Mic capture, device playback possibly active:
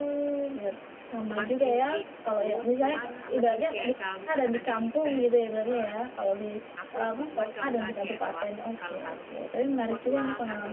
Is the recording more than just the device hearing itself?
Yes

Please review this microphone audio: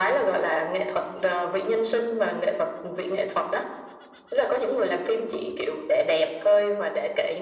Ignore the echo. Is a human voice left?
No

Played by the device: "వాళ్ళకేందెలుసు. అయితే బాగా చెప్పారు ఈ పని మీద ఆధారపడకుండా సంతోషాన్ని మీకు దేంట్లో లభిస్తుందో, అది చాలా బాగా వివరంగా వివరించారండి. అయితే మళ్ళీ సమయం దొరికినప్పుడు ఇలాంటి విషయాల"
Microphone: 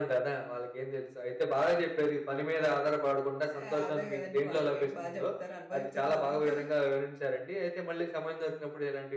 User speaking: Yes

